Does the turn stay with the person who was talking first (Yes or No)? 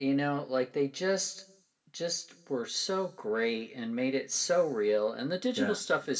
Yes